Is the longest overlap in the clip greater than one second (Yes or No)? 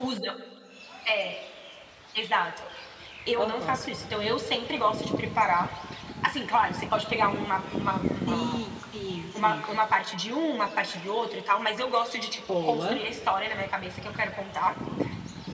No